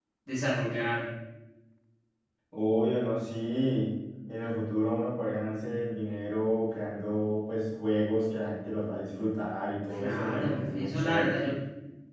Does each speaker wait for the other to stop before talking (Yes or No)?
No